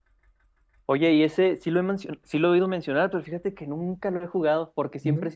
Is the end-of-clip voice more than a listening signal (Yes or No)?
No